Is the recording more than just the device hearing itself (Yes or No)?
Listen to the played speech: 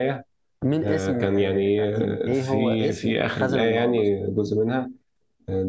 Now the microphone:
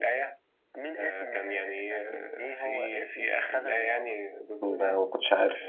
Yes